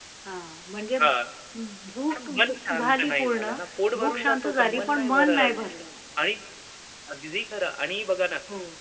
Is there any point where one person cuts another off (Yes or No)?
Yes